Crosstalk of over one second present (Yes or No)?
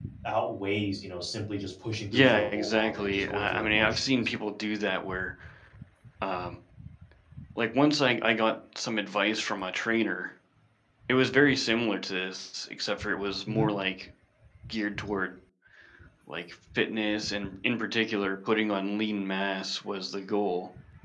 Yes